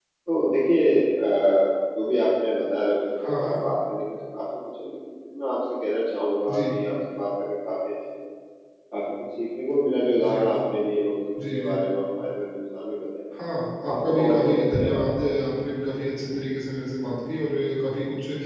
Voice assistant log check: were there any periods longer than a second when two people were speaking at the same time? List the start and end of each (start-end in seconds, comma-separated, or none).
13.8-15.1